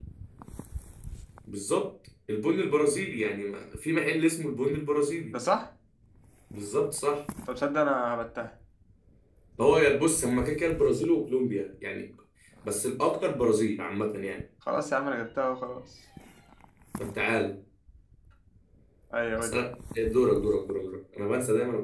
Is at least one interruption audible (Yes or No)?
No